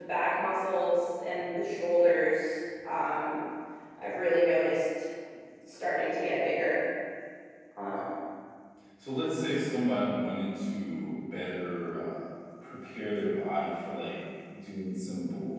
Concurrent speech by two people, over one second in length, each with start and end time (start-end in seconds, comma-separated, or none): none